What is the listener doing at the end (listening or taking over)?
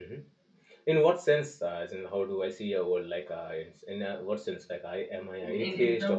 taking over